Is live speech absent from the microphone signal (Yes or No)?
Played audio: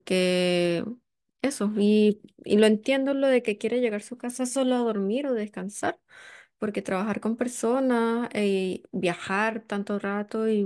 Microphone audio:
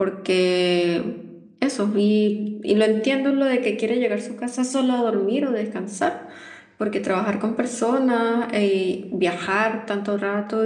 Yes